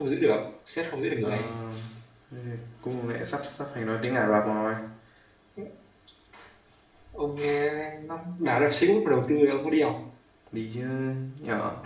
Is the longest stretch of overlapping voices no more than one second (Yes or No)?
Yes